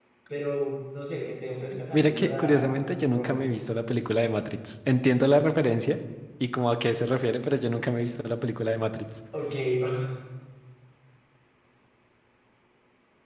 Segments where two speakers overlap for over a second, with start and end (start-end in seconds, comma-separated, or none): 1.9-3.4